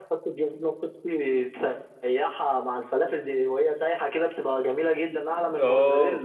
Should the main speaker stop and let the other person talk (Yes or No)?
Yes